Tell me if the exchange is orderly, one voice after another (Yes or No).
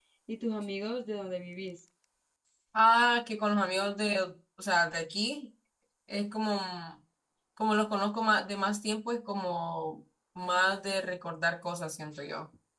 Yes